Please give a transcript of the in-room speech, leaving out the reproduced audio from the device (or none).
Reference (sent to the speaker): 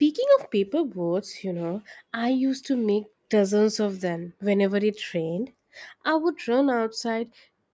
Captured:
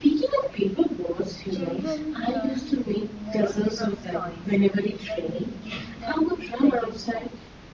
Children learn more from toys than we give them credit for.